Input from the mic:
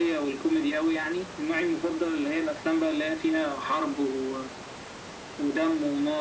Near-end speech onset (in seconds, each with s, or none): none